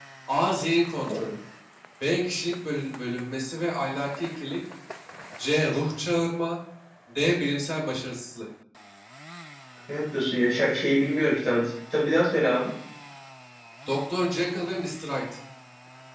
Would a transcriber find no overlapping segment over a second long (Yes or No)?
Yes